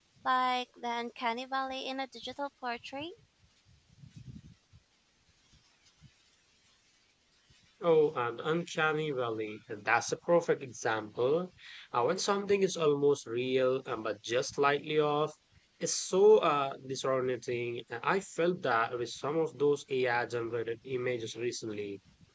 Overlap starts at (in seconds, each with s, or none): none